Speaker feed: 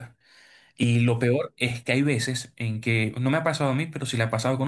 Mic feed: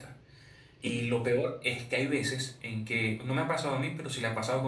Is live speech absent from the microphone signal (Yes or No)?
Yes